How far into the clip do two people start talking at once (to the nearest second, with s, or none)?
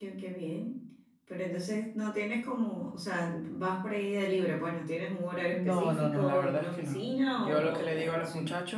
6 s